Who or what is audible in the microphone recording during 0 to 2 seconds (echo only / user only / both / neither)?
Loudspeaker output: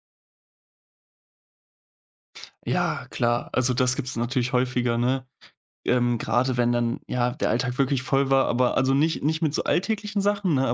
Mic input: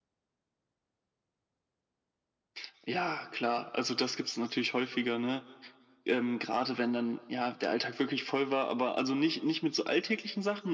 neither